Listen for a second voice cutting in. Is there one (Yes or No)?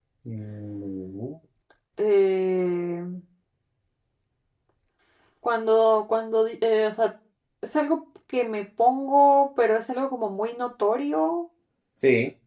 No